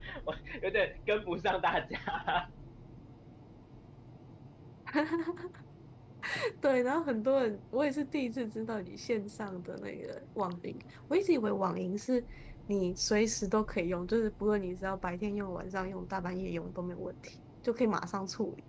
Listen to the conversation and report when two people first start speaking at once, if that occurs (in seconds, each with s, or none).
none